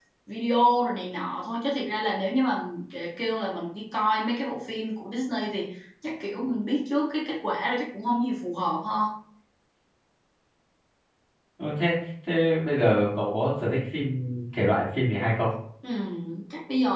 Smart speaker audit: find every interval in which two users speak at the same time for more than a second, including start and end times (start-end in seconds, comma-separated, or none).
none